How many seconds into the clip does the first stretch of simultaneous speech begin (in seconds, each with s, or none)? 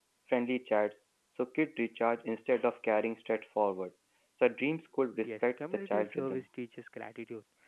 5.2 s